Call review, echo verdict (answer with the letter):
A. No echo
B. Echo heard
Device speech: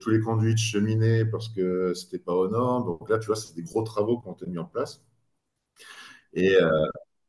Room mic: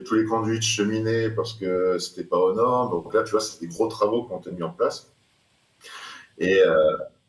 B